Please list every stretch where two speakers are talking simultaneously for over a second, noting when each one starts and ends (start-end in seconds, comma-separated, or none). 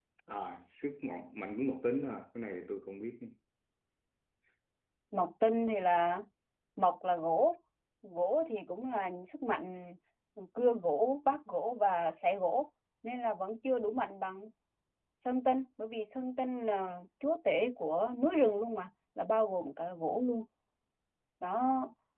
none